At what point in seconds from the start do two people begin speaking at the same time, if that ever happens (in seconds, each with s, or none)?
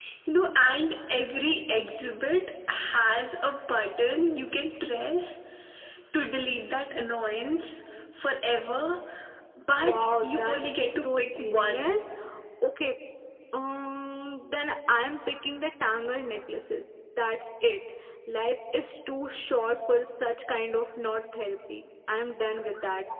9.9 s